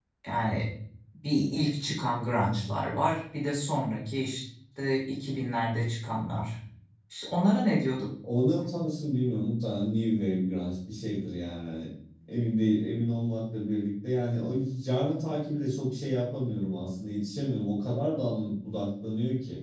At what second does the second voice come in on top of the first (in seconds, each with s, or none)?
none